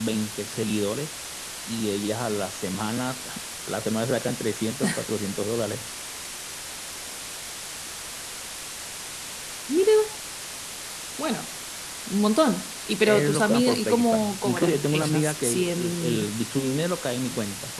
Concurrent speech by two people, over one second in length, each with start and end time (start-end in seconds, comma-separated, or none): 13.0-16.3